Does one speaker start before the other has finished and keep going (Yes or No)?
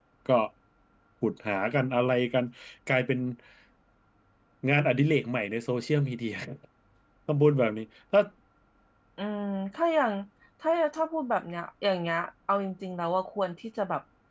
No